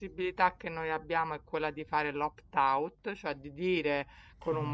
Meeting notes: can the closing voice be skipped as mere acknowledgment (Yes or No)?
Yes